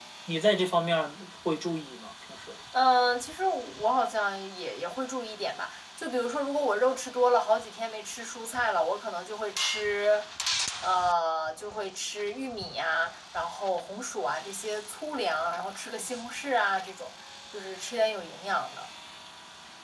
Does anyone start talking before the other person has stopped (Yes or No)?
No